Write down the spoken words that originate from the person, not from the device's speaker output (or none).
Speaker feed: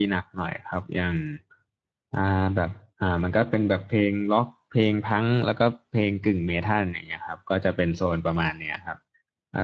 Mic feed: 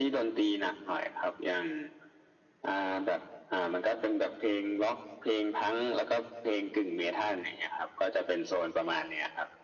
none